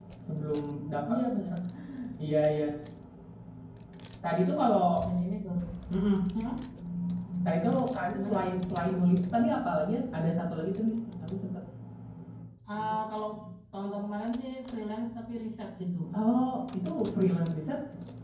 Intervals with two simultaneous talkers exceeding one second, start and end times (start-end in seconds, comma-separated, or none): none